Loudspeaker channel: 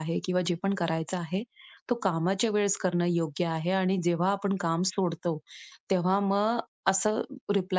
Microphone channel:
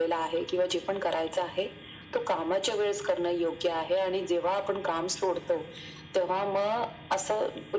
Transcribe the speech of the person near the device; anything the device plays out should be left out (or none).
none